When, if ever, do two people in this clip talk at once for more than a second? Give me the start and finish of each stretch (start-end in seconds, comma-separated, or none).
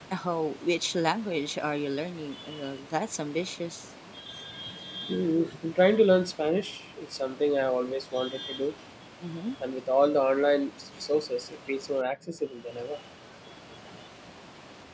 none